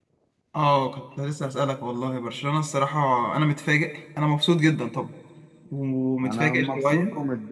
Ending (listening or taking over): taking over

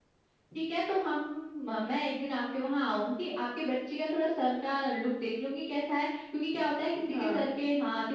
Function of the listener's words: listening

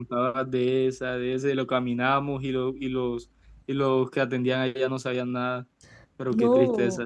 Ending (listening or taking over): taking over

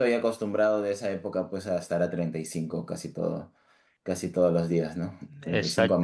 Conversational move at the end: taking over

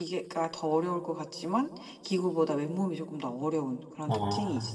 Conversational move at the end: taking over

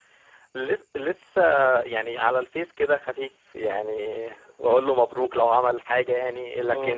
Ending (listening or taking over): listening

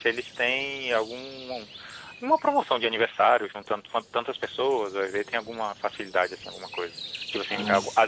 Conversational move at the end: listening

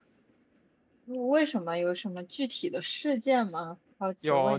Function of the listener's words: taking over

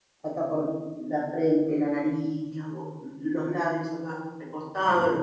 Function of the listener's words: taking over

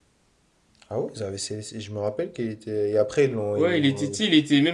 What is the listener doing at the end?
taking over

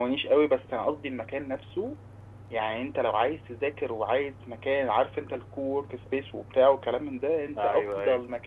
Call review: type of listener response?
listening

